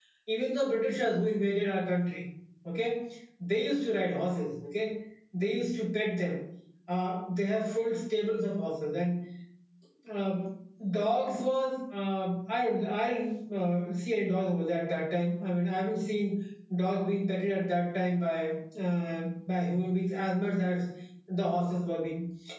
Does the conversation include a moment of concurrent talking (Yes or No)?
No